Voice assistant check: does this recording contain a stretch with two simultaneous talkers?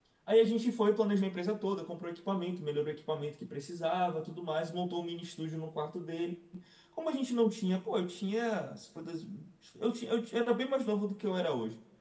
No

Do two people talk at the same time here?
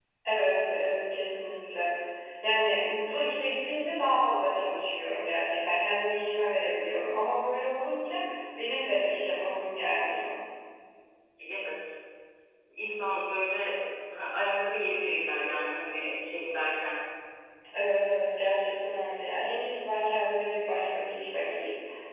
No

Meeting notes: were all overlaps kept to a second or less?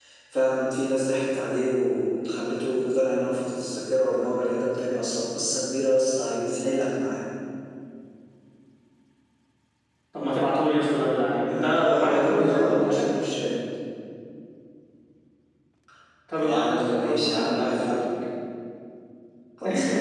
No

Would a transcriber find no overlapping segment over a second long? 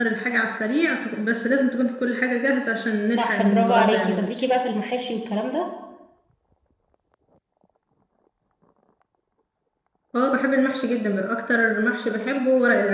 No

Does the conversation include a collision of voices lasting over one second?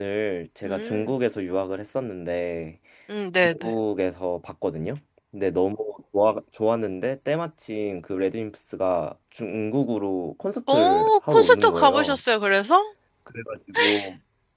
Yes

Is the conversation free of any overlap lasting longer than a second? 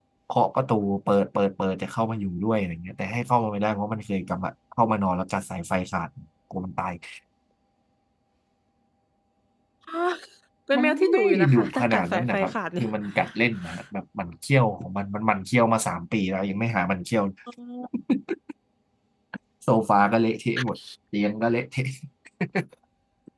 No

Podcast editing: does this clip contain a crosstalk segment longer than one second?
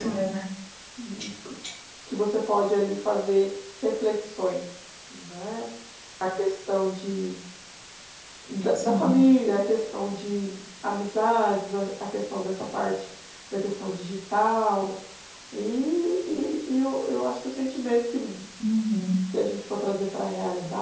No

